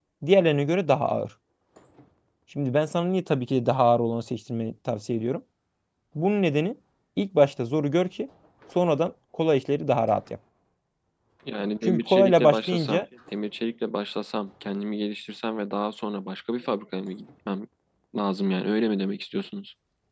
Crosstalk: present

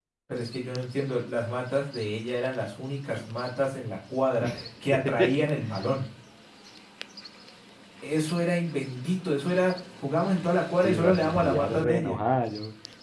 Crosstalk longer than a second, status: present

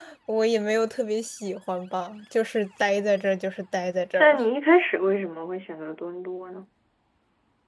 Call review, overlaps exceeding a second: none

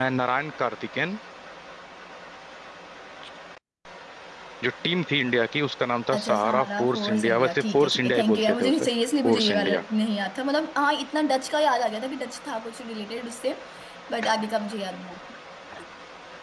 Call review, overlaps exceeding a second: present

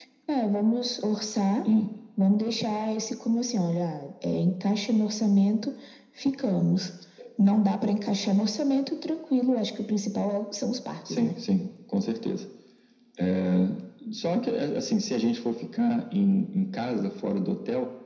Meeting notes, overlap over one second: none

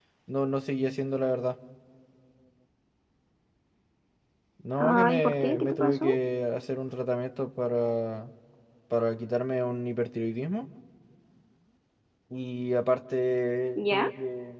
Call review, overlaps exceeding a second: present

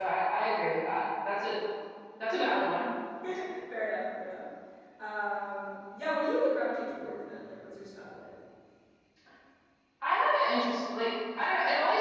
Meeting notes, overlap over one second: none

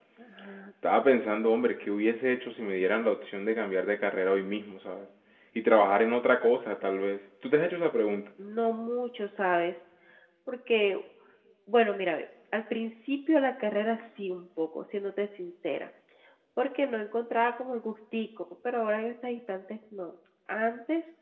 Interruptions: none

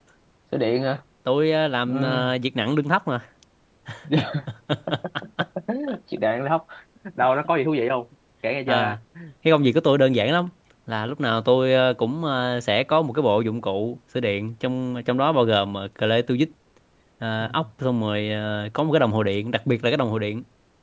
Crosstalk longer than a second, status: none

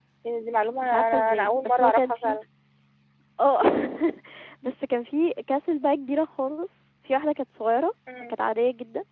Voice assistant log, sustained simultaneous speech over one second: present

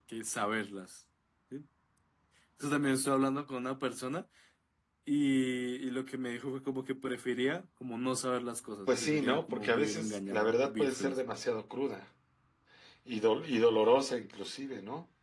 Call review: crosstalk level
present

